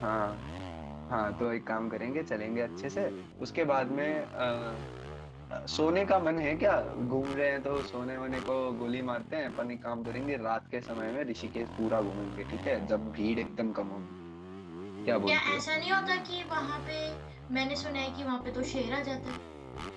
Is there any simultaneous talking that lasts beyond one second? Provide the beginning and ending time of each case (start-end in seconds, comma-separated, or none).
none